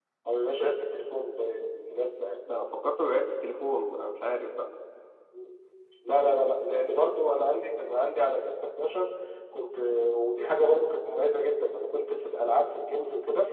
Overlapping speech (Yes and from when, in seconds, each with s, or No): No